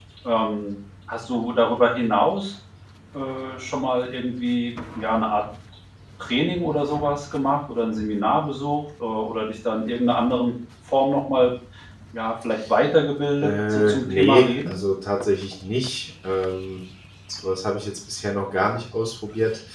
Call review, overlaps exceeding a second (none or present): present